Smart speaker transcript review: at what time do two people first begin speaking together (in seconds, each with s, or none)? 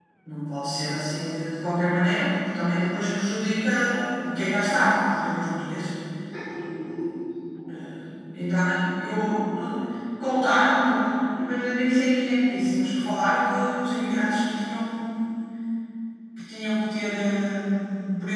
none